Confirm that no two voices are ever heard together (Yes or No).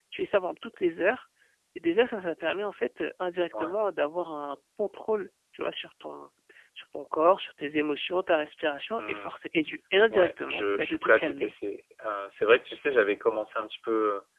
No